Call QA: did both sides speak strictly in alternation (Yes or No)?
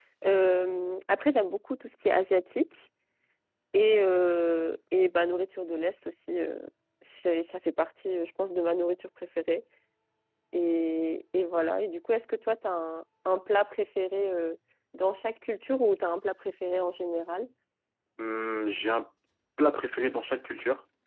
Yes